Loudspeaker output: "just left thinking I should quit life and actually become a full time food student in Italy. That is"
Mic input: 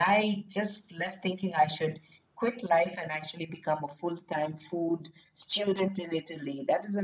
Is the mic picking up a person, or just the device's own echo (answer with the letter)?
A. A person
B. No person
B